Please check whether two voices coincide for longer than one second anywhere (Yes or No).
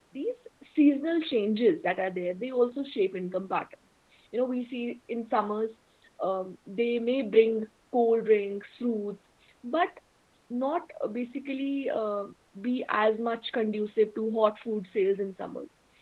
No